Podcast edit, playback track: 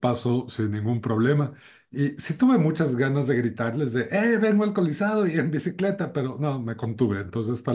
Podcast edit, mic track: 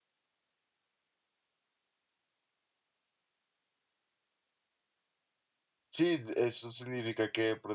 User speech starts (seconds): 5.9 s

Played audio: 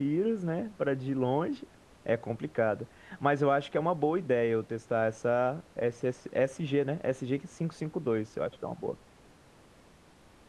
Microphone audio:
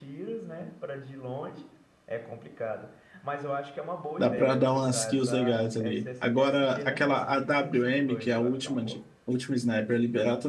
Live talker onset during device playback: 4.2 s

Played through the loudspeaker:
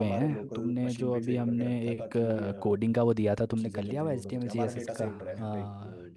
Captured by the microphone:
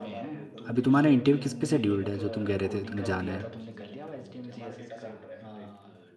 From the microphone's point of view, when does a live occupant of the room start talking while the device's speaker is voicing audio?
0.7 s

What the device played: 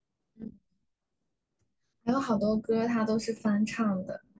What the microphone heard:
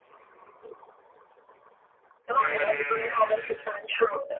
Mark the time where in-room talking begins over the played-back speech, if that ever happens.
2.3 s

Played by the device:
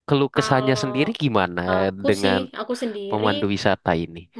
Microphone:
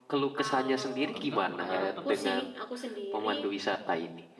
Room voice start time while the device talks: 1.1 s

